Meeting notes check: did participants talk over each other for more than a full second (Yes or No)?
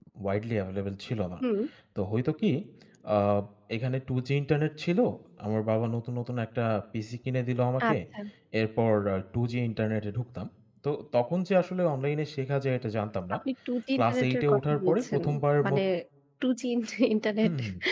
Yes